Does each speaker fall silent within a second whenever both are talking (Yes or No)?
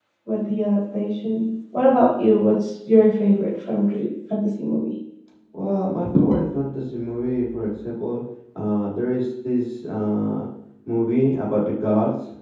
Yes